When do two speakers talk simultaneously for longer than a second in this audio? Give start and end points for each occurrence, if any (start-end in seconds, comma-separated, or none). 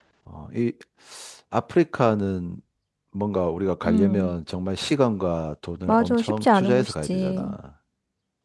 5.9-7.5